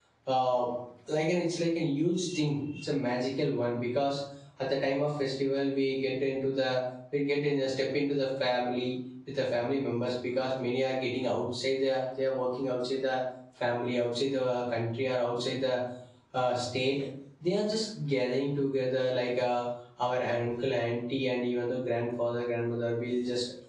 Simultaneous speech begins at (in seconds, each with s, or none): none